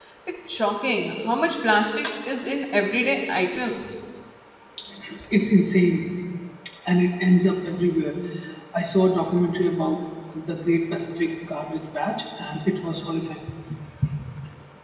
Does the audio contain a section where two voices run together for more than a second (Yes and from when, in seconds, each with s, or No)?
No